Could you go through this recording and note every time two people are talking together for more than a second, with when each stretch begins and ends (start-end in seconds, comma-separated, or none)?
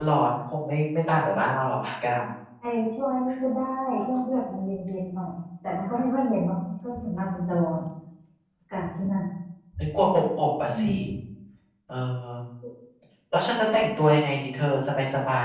none